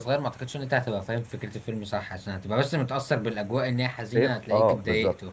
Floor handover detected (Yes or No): Yes